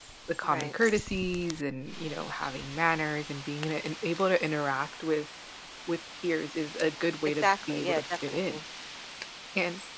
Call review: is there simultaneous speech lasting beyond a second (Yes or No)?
Yes